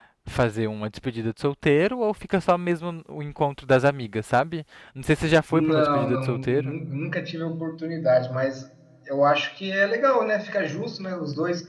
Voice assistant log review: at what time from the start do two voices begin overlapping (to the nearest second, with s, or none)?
6 s